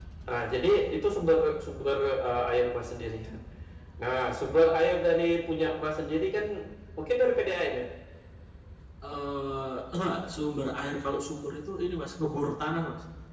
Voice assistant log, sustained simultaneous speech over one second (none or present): none